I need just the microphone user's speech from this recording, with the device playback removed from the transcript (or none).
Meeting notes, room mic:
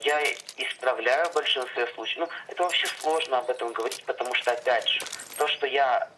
none